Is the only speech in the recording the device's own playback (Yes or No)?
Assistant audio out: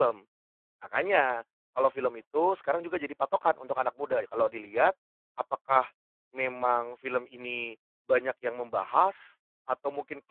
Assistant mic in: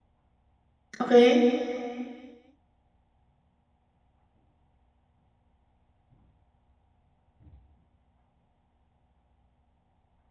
No